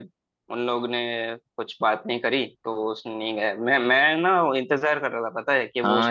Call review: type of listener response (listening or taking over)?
taking over